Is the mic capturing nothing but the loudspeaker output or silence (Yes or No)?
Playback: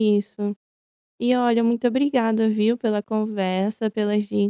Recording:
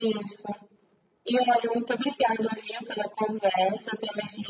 Yes